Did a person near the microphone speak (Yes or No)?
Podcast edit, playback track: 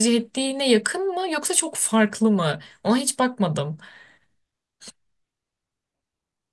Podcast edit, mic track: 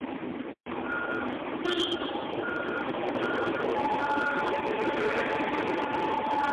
No